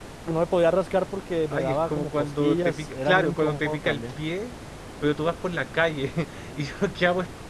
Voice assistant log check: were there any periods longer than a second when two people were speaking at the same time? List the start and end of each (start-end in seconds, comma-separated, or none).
1.5-4.1